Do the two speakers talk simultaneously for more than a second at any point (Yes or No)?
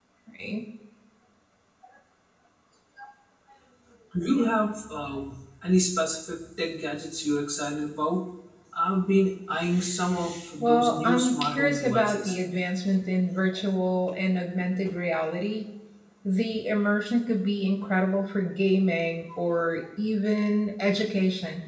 Yes